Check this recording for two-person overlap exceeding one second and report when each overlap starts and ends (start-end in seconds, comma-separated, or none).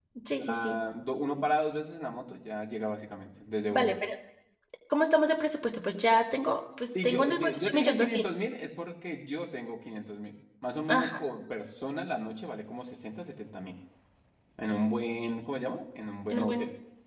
7.0-8.2